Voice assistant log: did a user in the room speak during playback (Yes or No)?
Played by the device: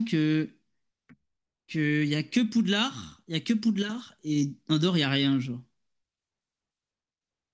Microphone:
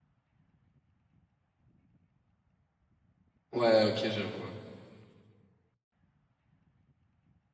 Yes